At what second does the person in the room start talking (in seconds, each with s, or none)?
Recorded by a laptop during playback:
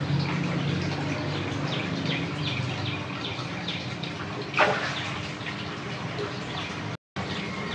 none